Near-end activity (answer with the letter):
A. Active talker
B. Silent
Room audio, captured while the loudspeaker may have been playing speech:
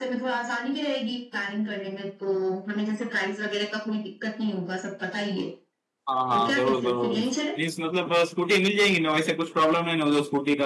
A